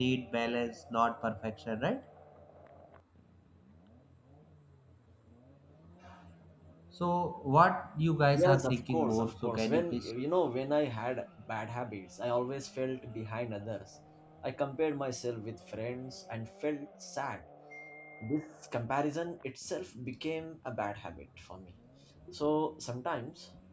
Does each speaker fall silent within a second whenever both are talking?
No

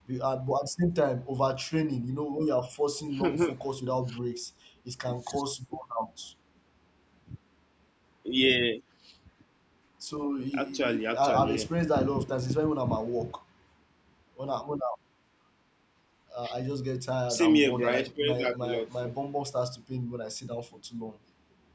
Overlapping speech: Yes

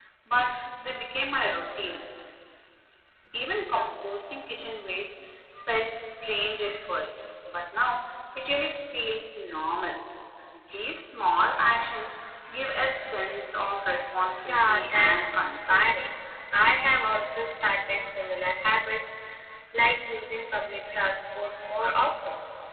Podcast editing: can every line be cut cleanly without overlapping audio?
No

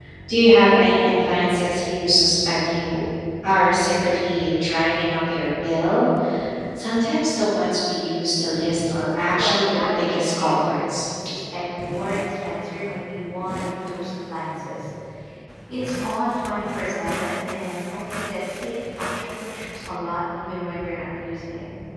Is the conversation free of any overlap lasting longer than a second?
No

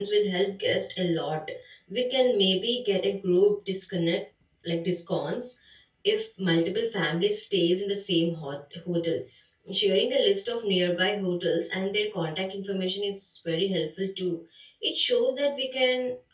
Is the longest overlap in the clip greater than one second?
No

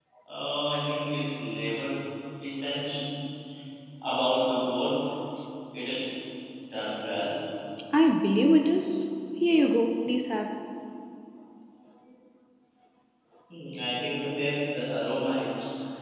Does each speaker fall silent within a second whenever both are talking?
Yes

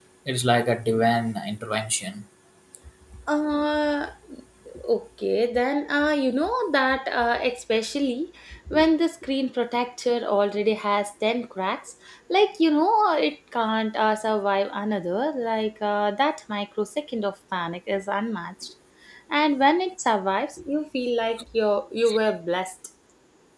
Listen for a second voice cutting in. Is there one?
No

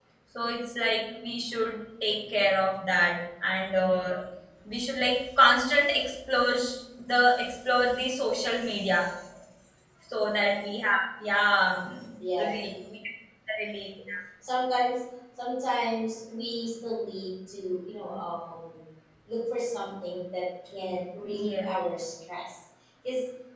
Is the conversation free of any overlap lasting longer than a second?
Yes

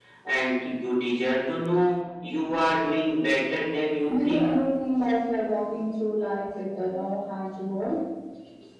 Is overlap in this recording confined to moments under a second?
Yes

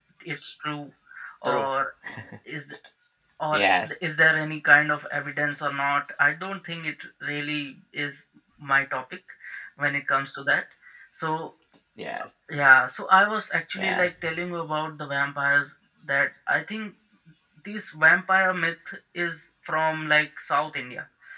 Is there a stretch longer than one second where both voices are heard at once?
No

